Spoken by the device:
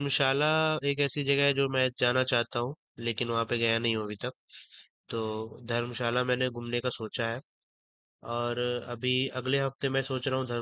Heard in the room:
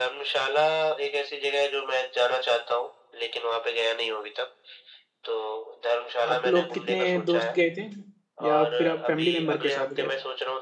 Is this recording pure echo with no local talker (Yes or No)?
No